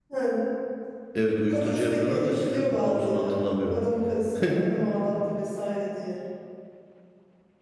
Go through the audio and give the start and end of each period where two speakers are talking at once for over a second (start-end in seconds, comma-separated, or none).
1.5-3.8